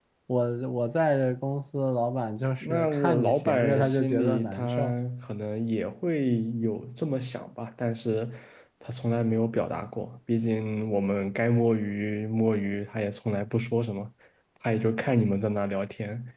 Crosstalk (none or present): present